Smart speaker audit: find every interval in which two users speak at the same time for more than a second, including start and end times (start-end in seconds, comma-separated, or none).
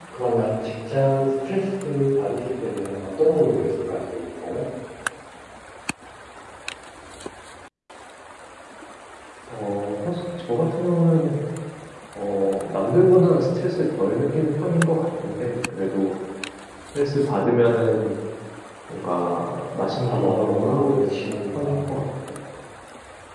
20.0-21.9